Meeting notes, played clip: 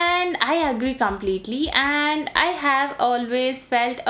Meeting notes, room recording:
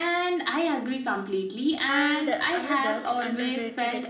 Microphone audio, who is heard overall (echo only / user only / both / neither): both